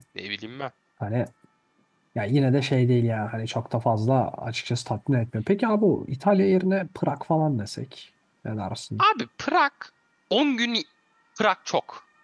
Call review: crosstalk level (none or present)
none